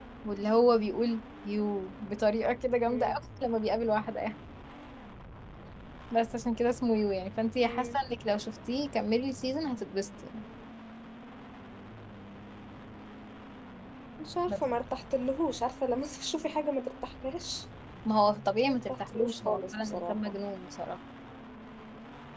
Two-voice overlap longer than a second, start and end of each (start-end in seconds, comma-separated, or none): 18.7-20.3